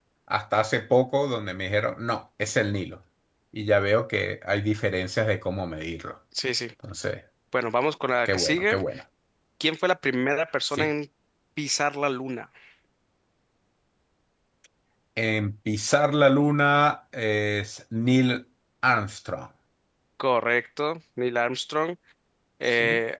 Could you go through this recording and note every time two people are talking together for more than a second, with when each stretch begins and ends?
none

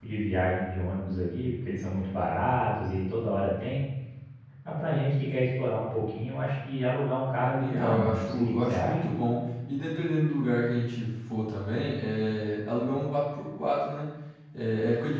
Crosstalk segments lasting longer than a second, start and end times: 7.6-9.0

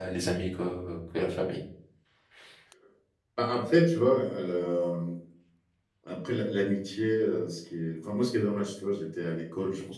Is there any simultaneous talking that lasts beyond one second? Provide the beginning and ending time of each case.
none

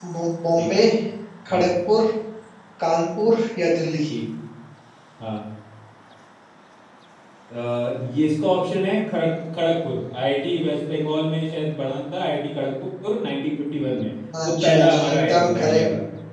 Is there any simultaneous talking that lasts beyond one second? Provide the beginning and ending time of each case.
14.5-15.8

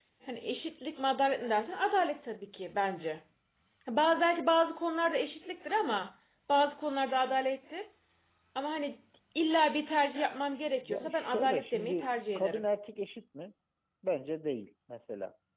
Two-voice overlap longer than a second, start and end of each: 10.8-12.6

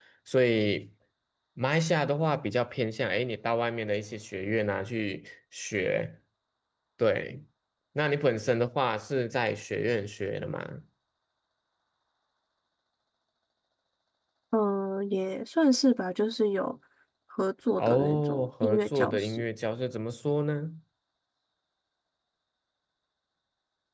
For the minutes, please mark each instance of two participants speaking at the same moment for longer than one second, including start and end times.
17.8-19.4

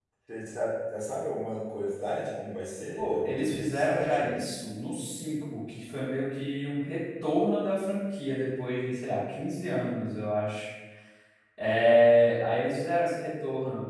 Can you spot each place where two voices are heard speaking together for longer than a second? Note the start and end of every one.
3.0-4.3

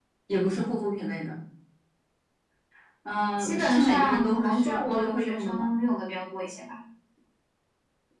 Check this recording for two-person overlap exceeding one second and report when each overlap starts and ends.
3.4-5.7

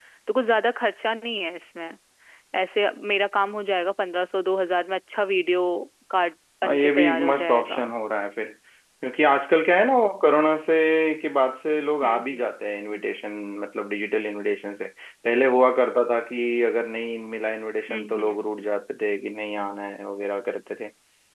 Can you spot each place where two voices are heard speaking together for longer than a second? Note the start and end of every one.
6.6-7.8

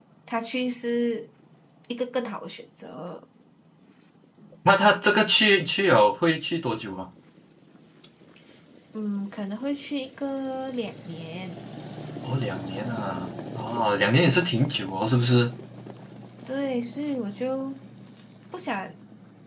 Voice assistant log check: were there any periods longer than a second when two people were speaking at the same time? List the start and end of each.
none

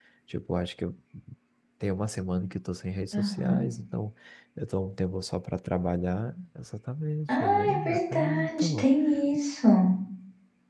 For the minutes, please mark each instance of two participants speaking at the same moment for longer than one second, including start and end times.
7.3-8.8

